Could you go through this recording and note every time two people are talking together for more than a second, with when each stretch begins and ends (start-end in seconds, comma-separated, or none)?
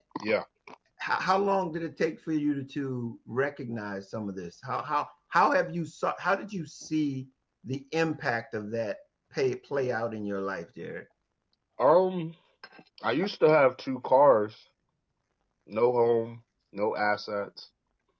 none